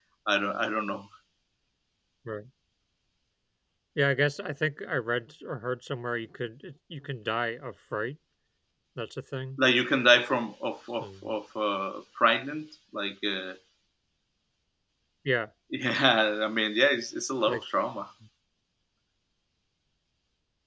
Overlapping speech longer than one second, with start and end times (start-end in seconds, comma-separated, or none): none